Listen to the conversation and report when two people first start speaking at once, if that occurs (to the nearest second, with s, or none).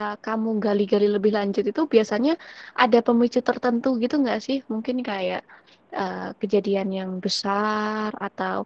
none